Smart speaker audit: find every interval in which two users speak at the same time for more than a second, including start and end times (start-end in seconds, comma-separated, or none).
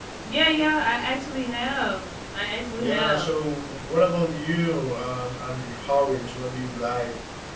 none